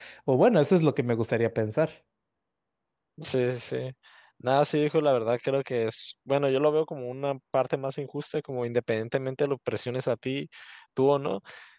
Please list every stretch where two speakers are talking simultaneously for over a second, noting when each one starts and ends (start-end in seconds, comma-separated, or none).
none